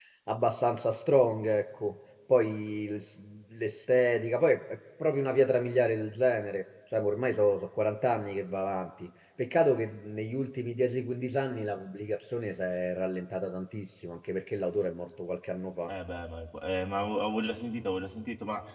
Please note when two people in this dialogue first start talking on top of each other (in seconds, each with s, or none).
none